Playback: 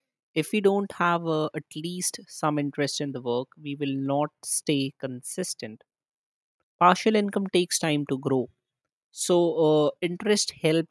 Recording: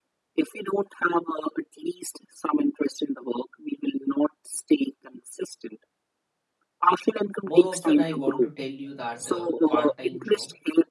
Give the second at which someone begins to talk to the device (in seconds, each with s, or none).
7.4 s